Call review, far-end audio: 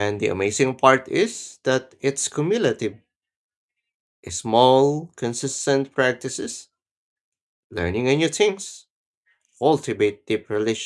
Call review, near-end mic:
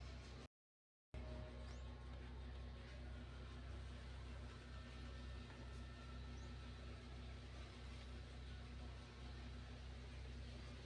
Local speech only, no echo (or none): none